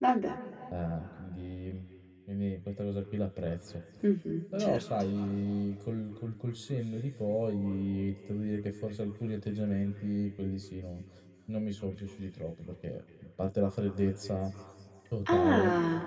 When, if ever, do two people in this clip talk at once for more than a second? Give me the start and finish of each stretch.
none

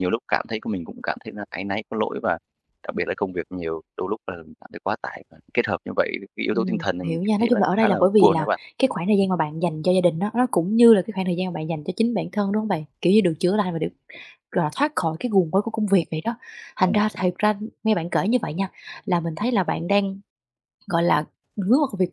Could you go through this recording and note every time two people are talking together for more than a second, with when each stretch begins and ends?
6.5-8.4

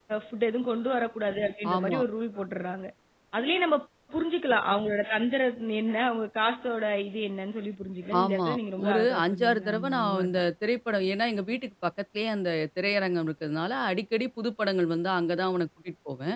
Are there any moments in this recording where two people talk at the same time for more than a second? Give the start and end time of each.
8.9-10.4

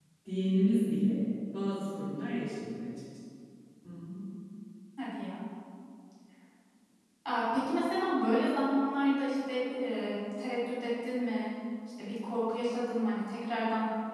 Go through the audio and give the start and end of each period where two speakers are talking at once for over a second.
none

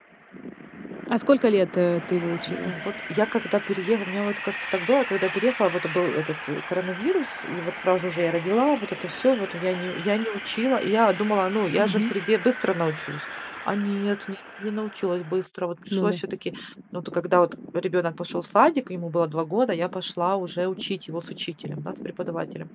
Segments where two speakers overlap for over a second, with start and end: none

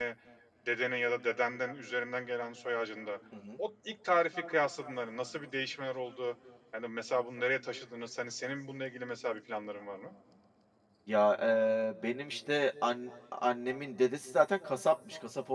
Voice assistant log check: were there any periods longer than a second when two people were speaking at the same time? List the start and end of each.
none

